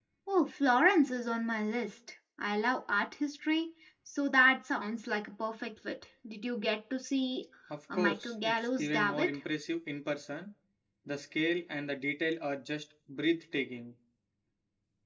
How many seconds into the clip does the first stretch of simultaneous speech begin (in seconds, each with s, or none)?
7.9 s